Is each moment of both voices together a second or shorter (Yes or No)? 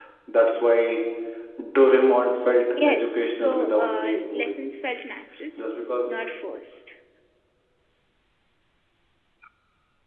No